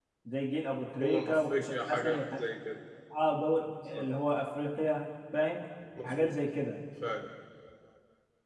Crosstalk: present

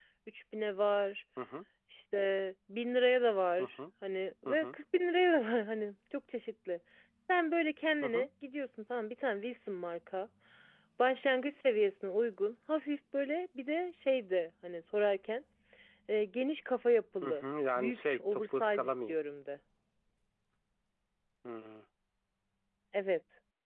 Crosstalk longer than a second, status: present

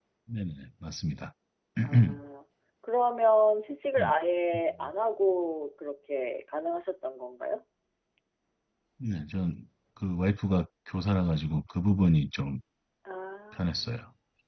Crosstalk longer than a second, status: none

